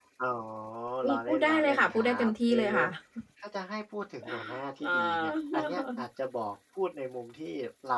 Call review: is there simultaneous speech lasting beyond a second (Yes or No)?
Yes